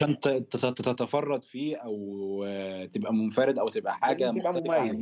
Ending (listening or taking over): listening